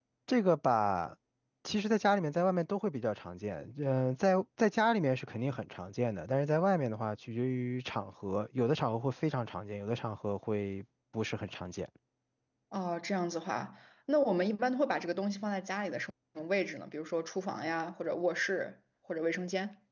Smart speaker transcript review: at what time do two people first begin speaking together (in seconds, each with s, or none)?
none